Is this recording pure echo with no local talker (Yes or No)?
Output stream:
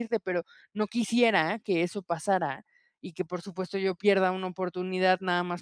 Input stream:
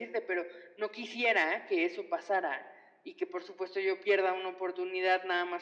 Yes